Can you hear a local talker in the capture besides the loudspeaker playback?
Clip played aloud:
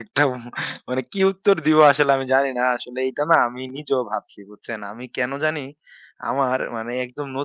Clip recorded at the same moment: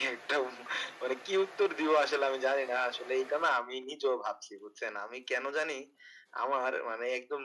No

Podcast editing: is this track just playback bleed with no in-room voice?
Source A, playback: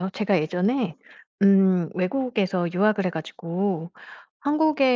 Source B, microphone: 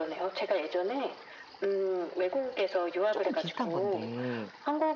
No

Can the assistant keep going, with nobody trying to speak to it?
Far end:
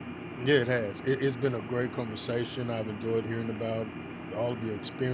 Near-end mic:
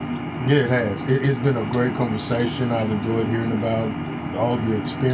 Yes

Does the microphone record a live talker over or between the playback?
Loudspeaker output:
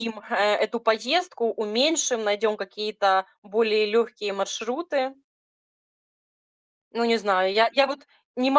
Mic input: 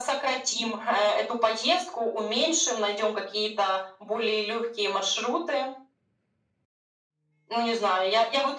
No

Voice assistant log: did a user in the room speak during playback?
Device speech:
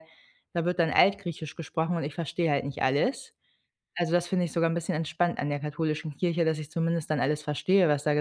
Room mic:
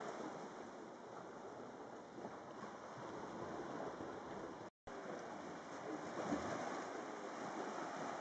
No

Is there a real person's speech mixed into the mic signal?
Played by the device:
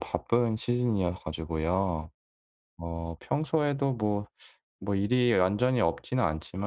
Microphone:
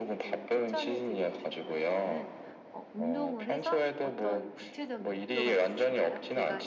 Yes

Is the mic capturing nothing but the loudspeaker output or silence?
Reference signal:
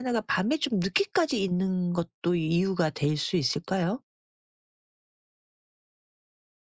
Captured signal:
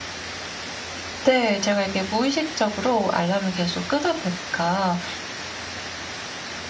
No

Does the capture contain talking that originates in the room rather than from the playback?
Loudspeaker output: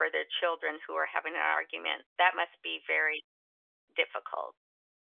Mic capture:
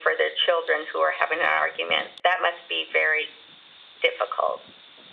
No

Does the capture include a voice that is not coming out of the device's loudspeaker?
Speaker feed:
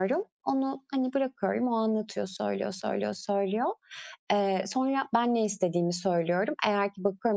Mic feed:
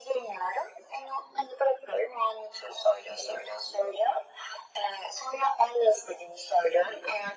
No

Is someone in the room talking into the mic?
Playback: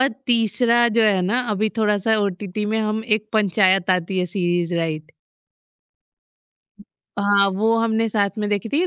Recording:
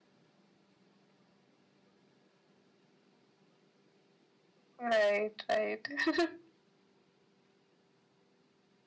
Yes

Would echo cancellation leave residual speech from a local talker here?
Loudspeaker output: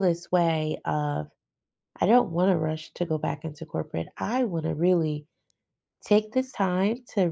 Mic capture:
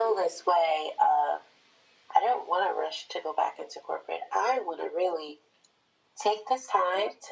No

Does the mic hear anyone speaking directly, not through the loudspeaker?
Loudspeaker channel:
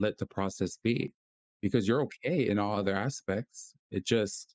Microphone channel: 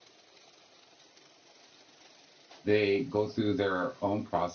Yes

